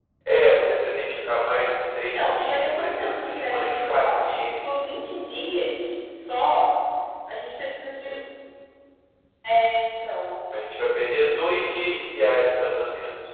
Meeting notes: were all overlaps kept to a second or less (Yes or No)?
No